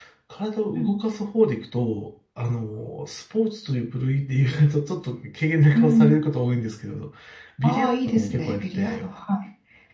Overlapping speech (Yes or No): Yes